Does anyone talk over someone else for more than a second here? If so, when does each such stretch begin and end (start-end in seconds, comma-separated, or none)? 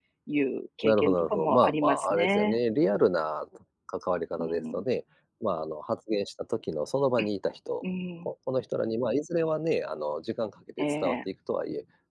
0.8-2.6